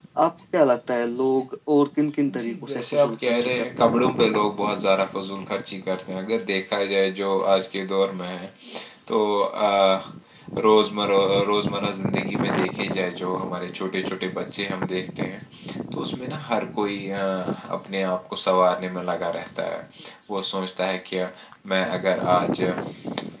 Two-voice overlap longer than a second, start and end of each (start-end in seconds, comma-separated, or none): 2.4-4.0